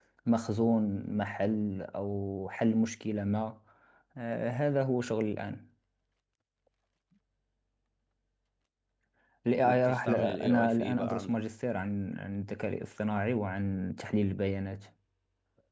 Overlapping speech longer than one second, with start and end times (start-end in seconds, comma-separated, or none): 9.6-11.4